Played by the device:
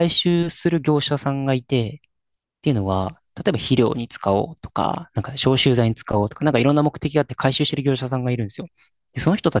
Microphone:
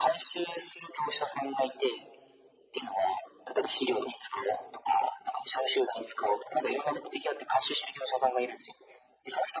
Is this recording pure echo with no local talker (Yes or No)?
Yes